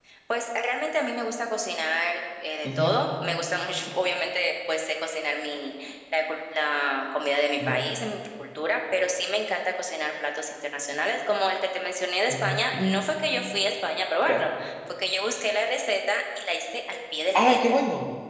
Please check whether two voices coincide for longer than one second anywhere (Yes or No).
No